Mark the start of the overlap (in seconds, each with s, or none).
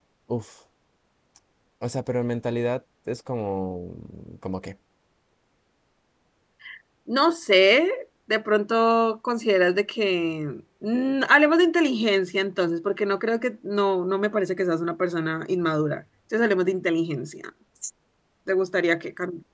none